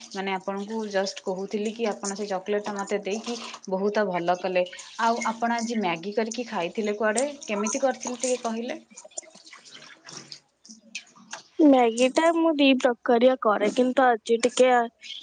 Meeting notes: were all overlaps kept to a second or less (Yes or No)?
Yes